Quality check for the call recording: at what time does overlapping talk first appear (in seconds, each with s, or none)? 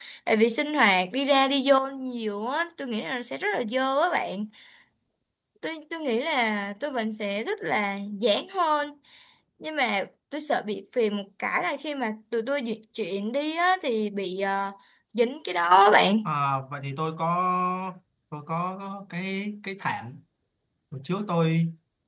none